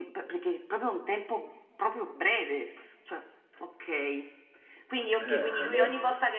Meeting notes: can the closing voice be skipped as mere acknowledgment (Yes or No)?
Yes